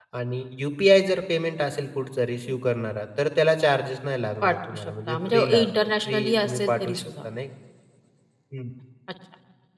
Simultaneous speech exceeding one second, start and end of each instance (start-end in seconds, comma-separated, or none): 4.4-7.2